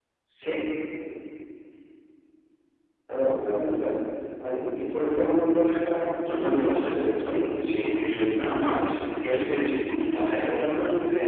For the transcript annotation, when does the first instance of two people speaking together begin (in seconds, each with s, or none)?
6.3 s